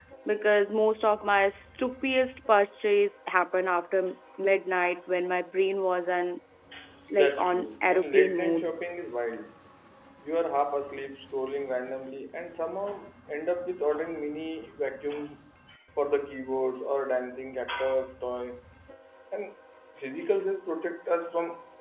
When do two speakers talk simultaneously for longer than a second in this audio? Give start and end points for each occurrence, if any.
7.2-8.7

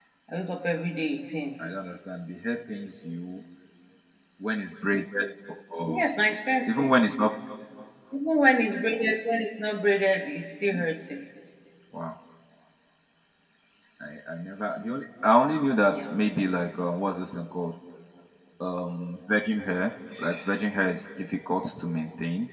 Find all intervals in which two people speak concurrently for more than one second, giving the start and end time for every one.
none

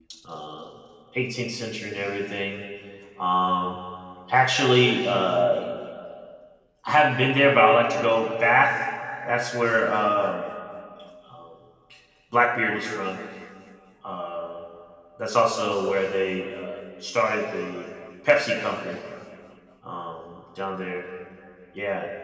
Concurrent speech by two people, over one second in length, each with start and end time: none

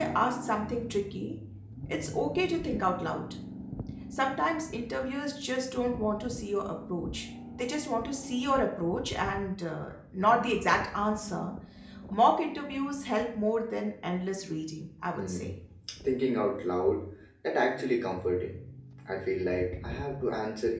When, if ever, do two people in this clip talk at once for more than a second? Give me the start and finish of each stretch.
none

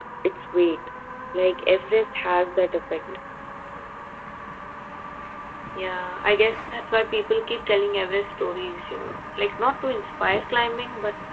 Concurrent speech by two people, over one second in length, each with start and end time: none

